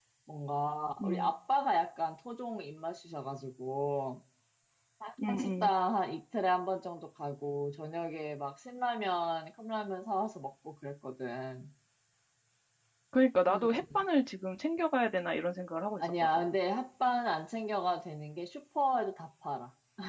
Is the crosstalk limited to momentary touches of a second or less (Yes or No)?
Yes